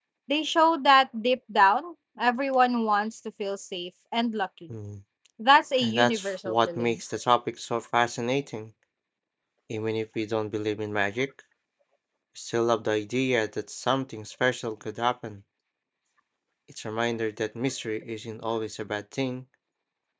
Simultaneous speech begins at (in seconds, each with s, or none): 5.8 s